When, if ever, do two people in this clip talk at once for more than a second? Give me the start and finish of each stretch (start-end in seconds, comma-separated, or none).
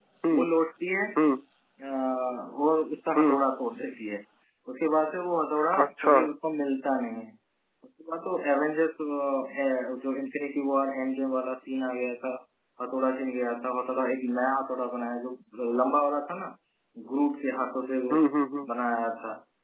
none